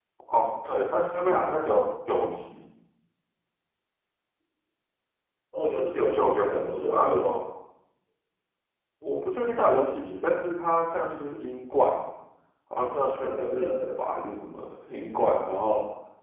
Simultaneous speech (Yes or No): Yes